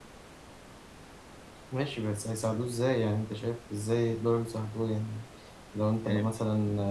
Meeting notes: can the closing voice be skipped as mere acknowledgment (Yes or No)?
Yes